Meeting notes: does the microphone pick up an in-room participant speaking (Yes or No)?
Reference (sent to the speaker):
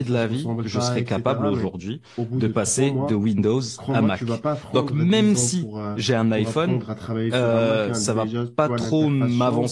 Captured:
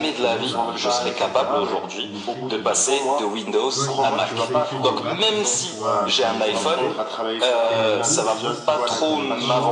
Yes